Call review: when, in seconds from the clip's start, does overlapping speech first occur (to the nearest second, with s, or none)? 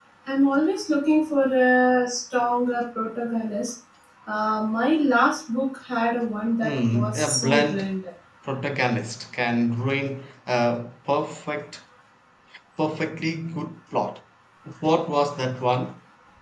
7 s